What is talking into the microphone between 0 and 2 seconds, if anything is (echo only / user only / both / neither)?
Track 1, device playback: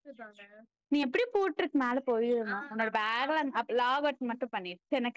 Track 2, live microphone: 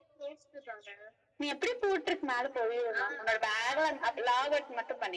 echo only